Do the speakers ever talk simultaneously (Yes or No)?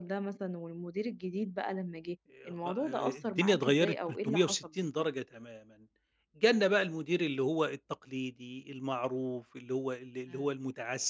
Yes